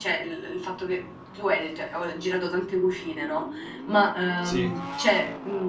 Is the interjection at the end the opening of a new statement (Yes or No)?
No